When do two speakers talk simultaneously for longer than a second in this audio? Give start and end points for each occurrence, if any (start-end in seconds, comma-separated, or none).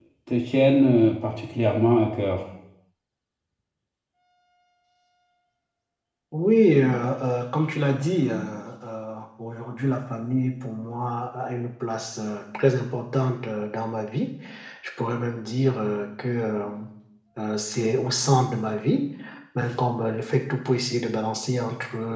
none